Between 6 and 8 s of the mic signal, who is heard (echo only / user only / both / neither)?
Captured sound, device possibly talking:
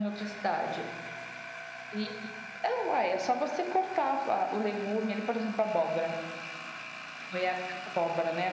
echo only